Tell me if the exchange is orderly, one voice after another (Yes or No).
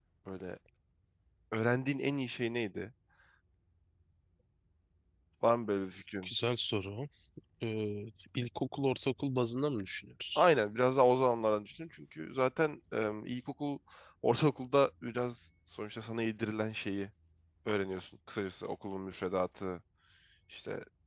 Yes